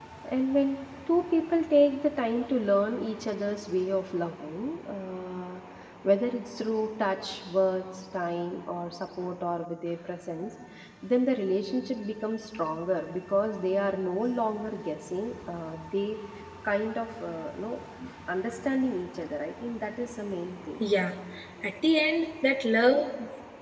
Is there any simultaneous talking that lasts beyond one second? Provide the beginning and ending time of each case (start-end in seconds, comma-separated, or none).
none